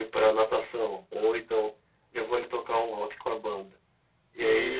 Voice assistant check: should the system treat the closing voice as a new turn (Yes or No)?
No